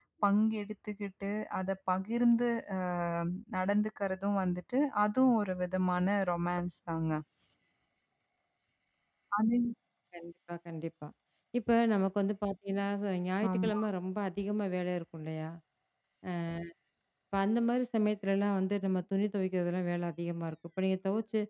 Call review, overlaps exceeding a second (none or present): none